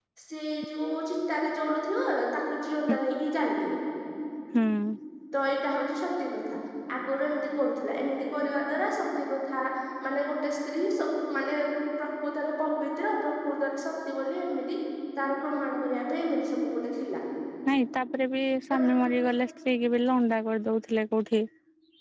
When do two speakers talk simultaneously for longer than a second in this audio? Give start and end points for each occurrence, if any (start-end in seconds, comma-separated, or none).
none